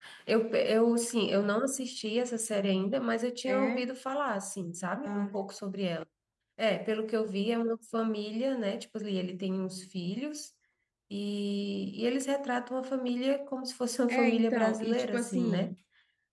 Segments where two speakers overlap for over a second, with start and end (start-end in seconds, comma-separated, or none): 14.1-15.7